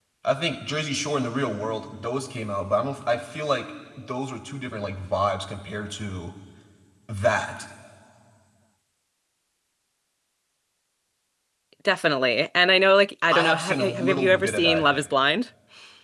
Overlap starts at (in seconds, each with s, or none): 13.3 s